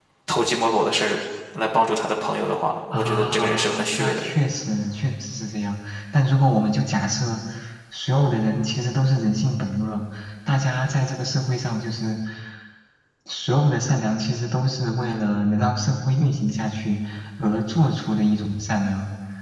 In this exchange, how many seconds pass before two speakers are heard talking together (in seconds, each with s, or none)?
2.9 s